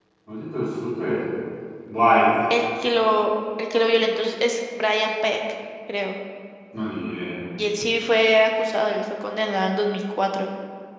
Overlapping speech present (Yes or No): No